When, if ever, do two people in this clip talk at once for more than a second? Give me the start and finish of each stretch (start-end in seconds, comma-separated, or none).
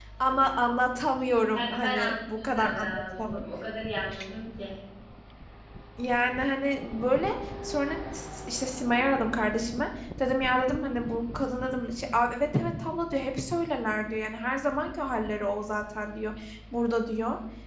1.6-3.4